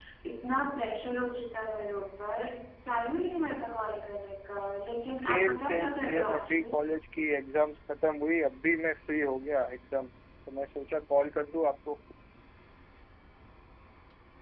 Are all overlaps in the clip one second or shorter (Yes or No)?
No